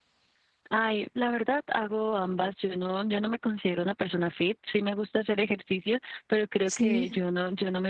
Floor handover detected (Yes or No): No